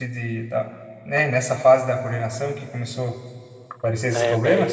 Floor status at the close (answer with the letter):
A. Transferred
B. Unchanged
A